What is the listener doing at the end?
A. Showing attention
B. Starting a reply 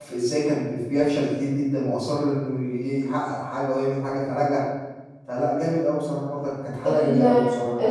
B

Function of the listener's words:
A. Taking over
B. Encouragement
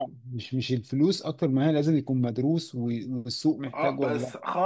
A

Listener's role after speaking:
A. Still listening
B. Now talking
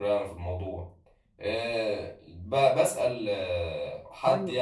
A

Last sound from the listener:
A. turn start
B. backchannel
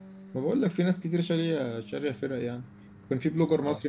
B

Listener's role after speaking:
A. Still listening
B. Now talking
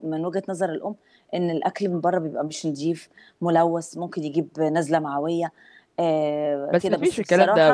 B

